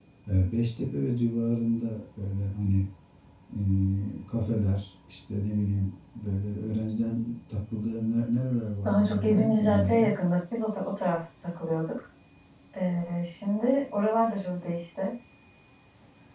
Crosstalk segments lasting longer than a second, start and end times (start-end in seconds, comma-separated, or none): 8.8-10.1